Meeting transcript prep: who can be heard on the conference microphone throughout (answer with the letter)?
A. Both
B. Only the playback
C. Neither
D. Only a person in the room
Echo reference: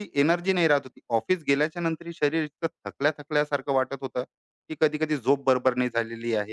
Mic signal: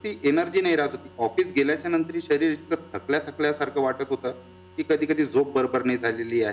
B